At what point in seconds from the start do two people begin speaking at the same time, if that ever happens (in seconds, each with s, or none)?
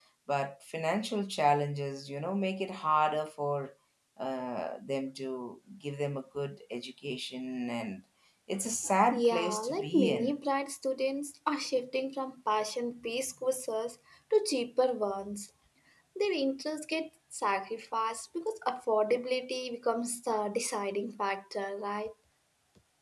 9.1 s